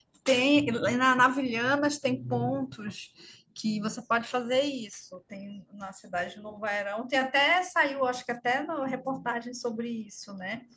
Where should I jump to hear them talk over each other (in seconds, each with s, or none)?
none